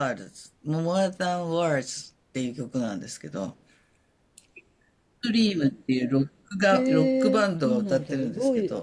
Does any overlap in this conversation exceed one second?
Yes, from 6.7 s

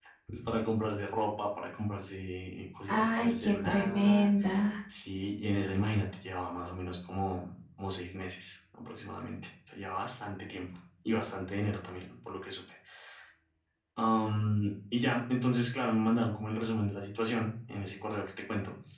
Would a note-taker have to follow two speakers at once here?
Yes, from 2.9 s

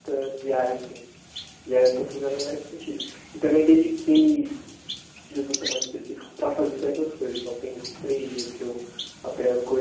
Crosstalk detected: No

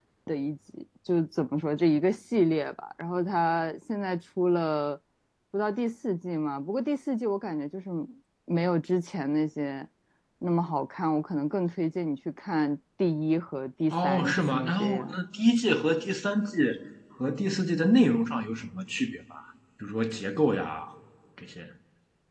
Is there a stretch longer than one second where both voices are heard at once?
Yes, from 13.9 s

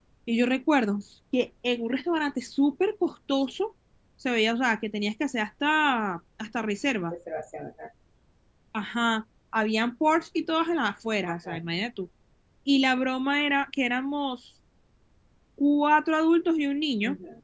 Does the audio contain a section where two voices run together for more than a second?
No

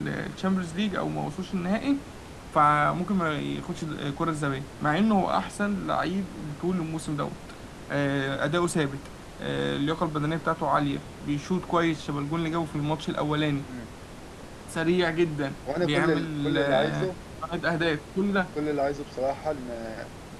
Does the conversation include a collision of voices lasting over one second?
Yes, from 15.7 s

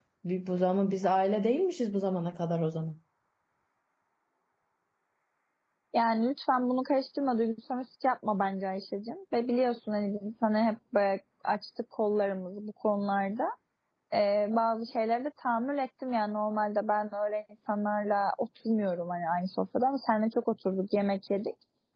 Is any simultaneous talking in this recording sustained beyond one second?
No

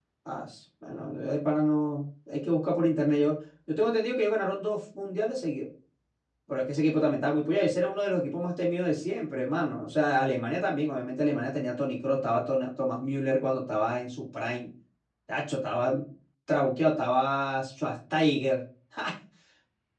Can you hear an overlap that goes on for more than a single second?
No

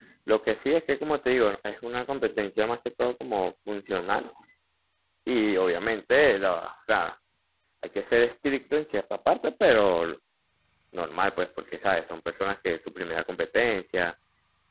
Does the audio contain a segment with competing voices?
No

